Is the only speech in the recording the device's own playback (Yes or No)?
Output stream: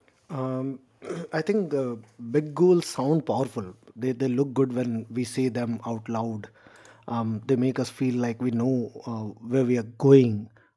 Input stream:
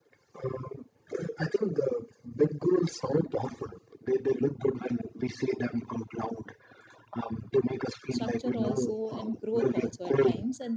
No